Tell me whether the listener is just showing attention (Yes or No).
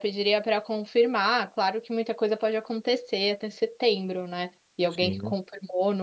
Yes